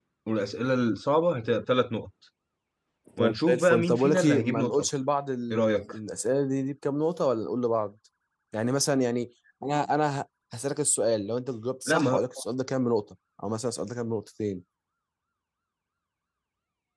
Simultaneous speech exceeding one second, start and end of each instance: 3.2-4.9

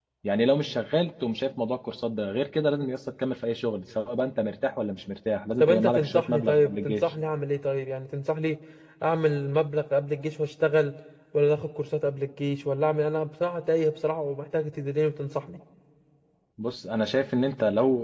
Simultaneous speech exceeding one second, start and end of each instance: 5.6-7.1

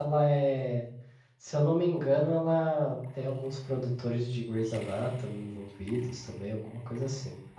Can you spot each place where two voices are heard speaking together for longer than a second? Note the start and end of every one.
none

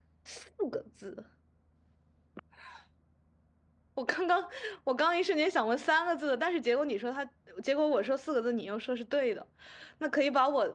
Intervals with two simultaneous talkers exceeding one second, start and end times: none

